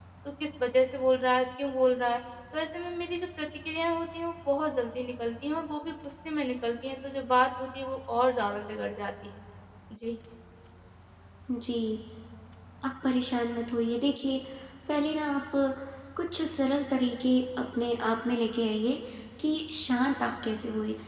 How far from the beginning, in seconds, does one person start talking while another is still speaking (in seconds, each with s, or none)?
none